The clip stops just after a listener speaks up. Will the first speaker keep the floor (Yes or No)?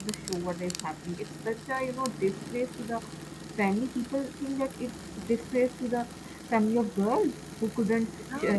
Yes